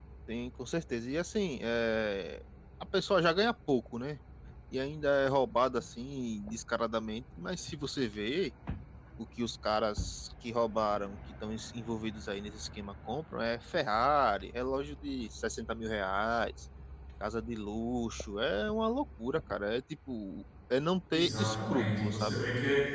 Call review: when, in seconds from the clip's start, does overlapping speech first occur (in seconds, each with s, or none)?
21.1 s